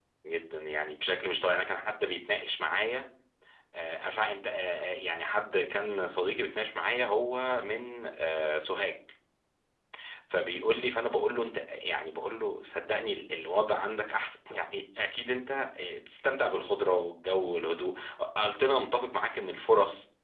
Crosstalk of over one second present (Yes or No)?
No